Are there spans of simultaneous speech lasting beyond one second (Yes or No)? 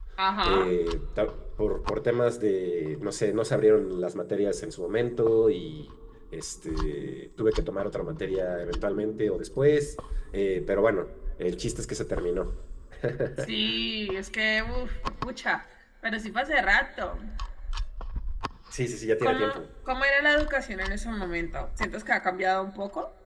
No